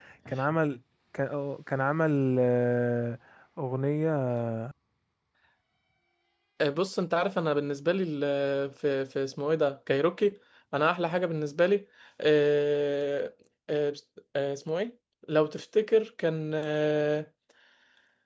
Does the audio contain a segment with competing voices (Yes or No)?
No